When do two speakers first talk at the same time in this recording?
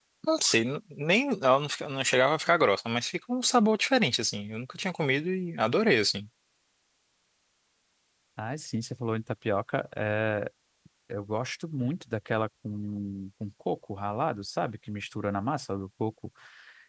none

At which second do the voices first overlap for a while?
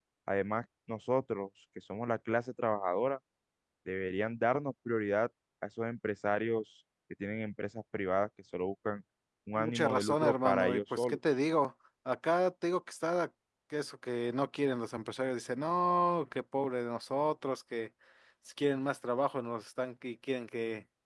9.6 s

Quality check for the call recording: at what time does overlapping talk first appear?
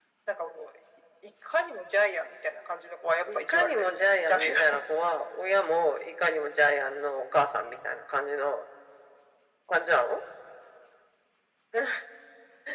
3.3 s

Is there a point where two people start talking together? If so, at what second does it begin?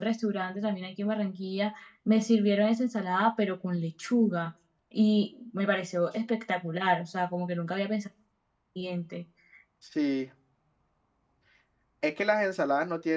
none

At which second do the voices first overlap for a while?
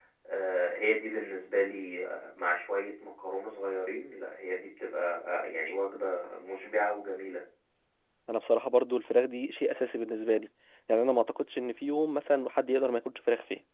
none

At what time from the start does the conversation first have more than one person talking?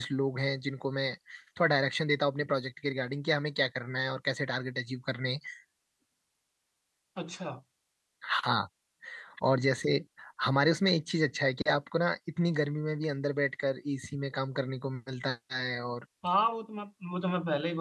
none

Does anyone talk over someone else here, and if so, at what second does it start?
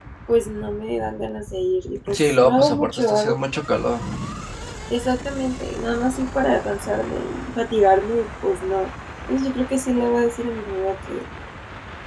2.1 s

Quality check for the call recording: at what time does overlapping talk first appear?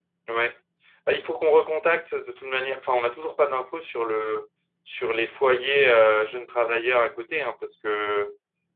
none

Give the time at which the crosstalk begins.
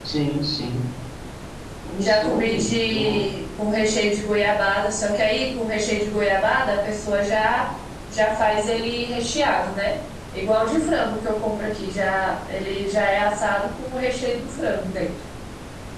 2.0 s

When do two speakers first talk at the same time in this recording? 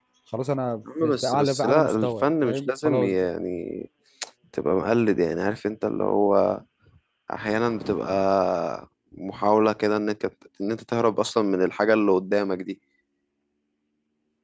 1.0 s

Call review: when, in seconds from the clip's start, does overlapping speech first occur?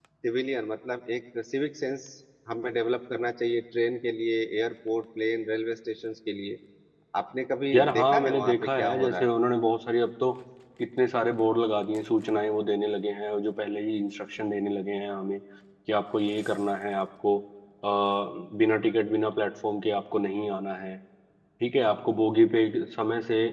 7.7 s

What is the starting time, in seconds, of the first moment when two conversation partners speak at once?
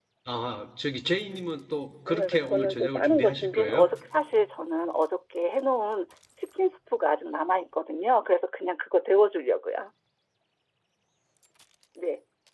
2.1 s

